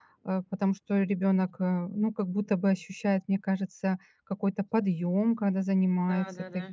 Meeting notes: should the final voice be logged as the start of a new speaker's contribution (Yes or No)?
Yes